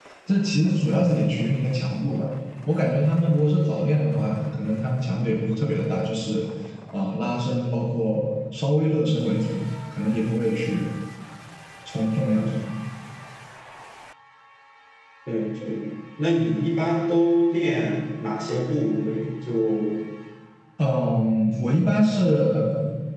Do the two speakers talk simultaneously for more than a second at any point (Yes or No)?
No